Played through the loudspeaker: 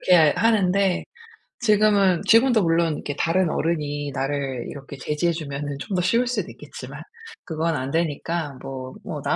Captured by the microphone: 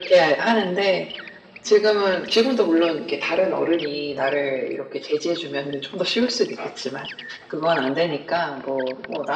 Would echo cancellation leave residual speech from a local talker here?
No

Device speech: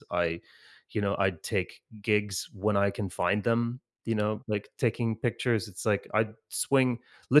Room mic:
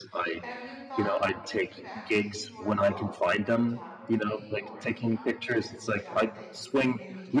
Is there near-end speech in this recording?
Yes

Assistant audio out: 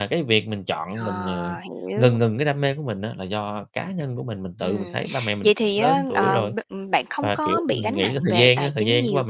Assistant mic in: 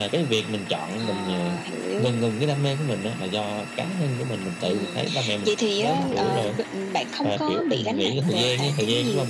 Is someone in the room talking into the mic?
No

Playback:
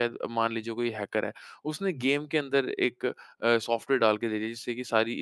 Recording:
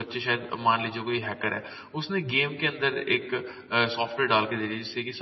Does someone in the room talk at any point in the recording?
No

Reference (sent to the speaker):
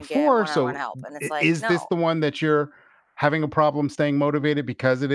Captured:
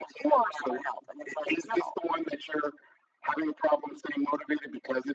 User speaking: No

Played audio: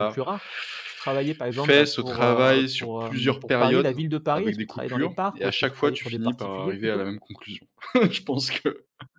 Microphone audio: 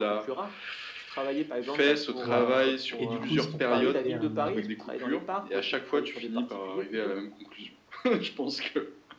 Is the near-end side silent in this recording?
No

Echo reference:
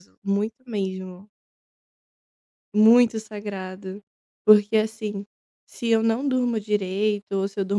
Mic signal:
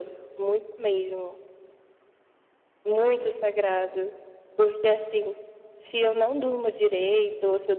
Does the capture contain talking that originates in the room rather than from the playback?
No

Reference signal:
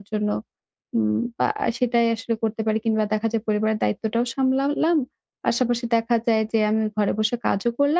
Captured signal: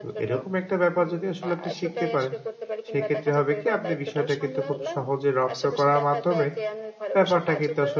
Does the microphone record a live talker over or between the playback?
Yes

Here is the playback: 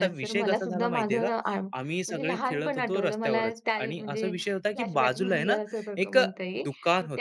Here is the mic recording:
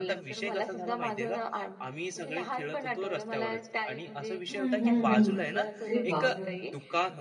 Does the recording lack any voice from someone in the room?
No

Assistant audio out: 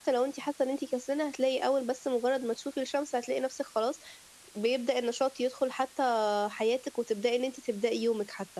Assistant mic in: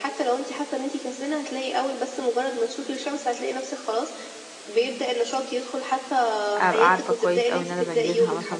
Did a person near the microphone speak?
Yes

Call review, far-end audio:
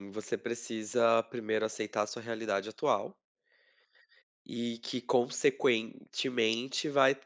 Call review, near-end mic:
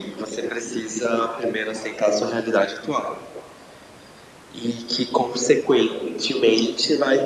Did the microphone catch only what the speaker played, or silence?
Yes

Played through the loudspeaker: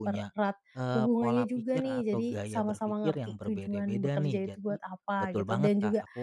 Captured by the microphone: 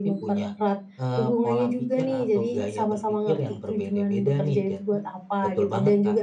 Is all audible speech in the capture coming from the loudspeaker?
Yes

